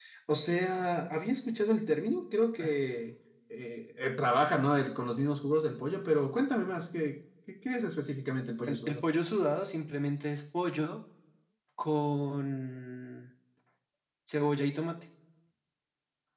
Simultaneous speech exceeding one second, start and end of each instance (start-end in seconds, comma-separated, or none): none